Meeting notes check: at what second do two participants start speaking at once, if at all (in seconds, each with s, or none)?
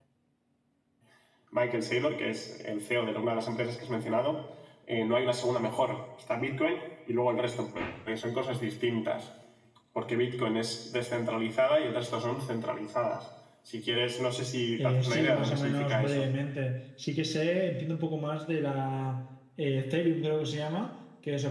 14.8 s